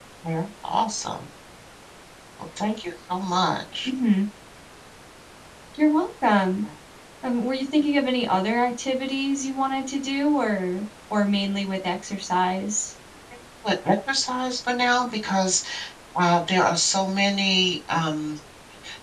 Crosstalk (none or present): none